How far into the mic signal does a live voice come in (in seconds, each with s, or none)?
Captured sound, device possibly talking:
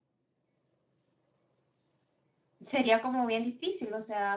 2.6 s